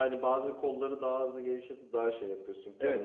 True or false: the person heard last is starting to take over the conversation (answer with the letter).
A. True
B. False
A